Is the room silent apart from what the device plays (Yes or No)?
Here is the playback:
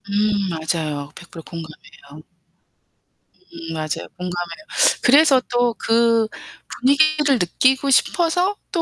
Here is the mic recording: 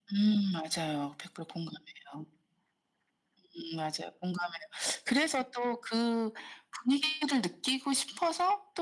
Yes